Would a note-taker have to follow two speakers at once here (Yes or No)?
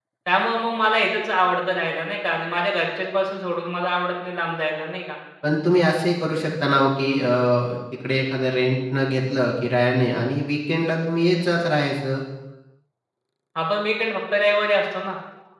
No